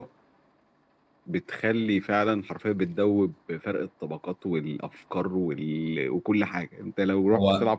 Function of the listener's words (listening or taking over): listening